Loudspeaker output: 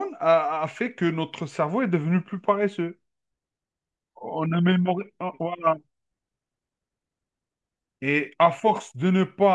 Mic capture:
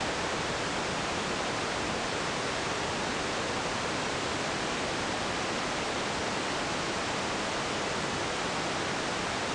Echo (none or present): none